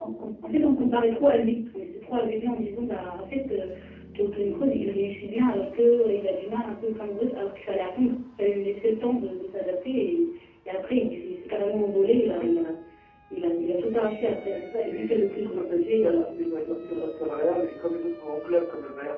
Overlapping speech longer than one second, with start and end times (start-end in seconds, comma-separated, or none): 14.5-17.1